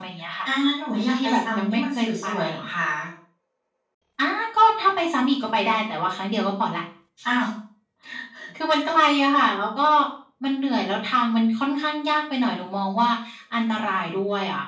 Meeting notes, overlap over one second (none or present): present